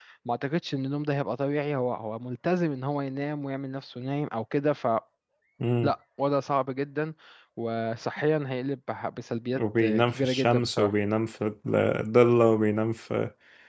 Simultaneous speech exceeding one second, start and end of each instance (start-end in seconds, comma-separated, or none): 9.6-10.9